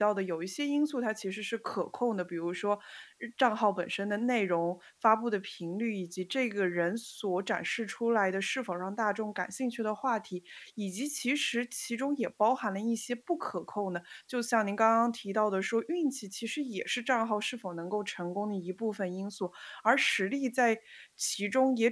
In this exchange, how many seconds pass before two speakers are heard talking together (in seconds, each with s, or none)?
none